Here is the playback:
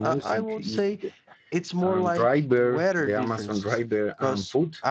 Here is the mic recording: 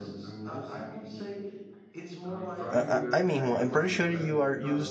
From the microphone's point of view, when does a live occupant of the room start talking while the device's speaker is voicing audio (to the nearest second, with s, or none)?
3 s